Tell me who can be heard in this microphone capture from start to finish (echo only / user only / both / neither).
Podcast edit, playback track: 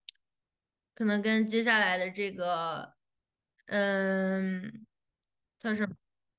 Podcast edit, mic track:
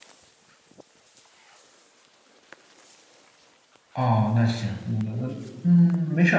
user only